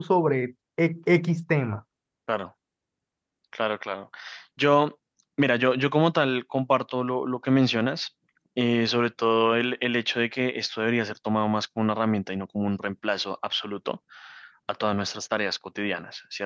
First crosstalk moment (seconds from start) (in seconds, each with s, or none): none